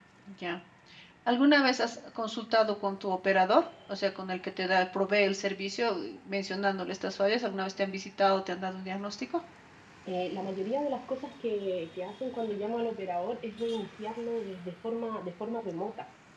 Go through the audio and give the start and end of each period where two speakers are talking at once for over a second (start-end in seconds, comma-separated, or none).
none